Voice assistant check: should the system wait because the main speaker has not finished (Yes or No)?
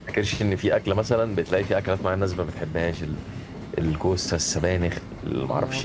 Yes